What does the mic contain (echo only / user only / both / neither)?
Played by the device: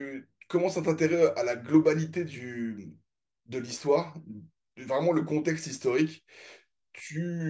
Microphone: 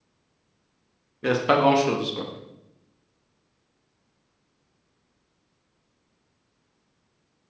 user only